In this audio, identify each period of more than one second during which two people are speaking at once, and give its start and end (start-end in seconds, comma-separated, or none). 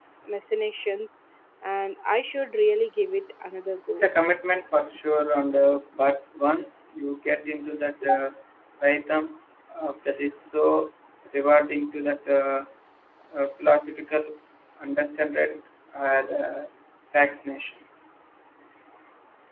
none